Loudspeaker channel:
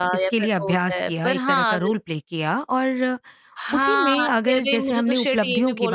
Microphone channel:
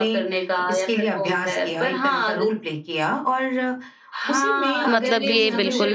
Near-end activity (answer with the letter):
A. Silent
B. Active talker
B